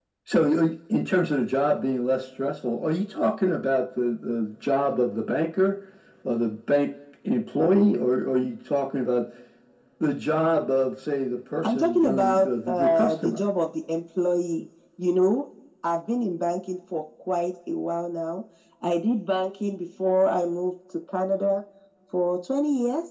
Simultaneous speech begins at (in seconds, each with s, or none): 11.6 s